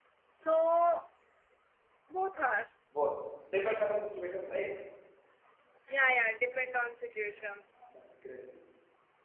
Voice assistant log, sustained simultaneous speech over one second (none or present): none